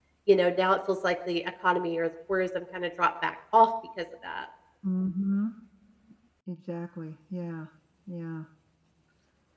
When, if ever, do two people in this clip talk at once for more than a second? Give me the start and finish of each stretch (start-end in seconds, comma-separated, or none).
none